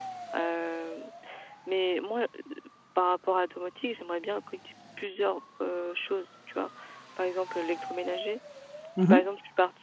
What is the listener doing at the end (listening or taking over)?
listening